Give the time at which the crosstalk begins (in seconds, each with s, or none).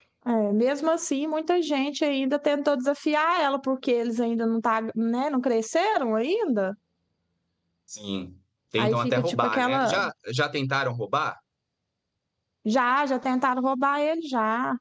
8.8 s